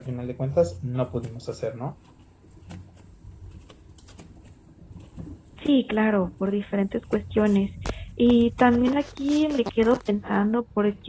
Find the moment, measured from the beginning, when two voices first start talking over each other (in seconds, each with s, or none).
none